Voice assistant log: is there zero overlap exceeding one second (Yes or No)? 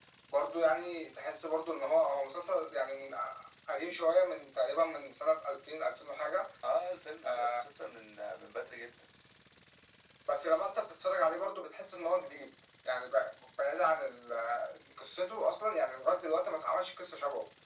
Yes